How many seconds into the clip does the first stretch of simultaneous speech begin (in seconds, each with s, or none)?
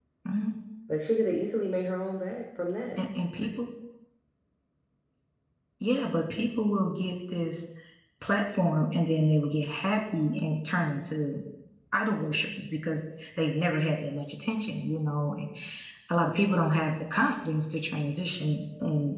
none